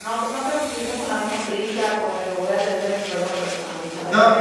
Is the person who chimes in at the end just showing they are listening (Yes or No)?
No